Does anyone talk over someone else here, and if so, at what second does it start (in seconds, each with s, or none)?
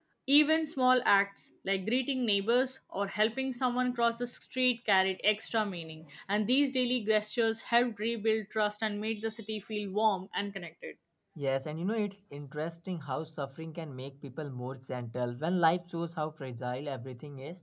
none